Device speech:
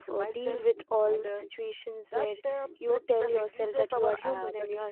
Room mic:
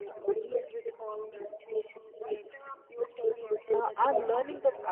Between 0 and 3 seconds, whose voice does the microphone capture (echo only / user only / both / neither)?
echo only